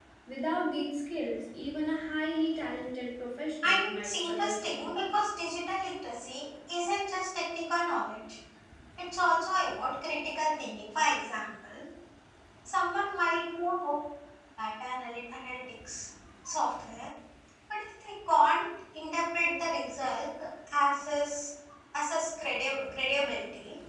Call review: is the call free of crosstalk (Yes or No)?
No